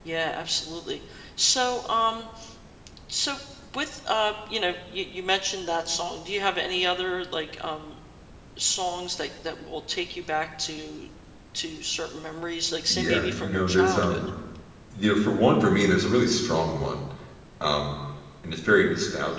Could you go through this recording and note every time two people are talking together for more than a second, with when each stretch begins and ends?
12.9-14.2

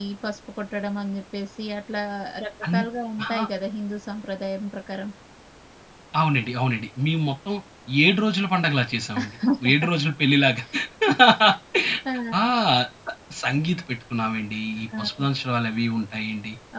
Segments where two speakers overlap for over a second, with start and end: none

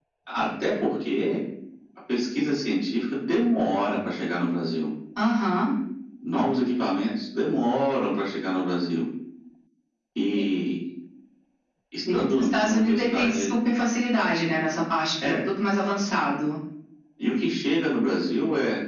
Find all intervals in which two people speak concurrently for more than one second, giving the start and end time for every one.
12.1-13.5

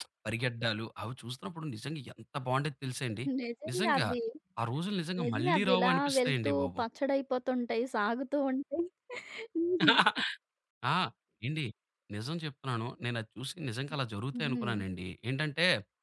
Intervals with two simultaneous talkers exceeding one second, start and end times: 5.2-6.8

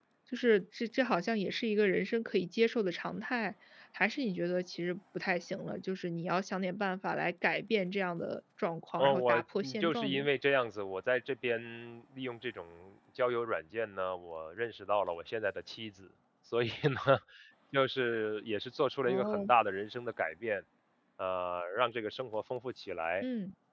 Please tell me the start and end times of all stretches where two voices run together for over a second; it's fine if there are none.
9.0-10.3

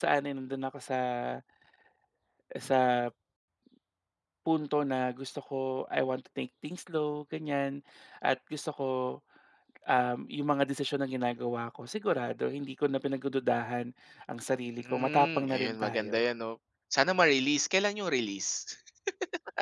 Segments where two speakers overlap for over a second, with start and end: 14.8-16.2

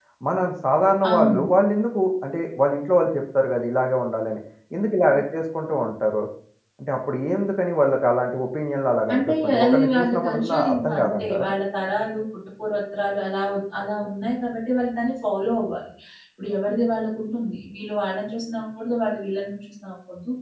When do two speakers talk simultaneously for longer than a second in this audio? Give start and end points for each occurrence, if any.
9.1-11.5

